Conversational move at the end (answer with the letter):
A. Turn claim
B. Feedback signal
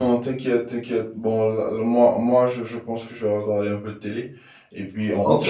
A